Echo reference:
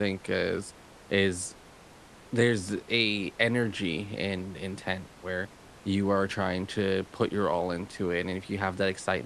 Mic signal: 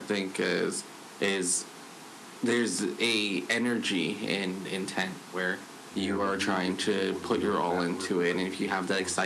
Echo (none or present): present